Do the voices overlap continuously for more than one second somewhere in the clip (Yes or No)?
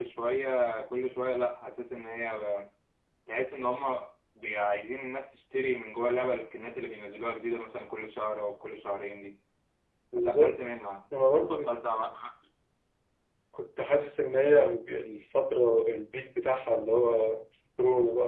No